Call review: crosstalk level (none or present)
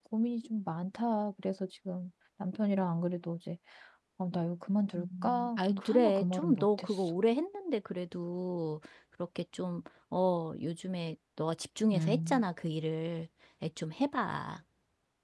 present